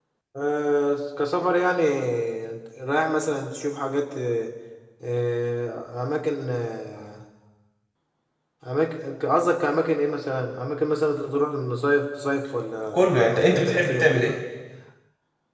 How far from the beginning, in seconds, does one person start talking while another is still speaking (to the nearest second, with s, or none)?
13 s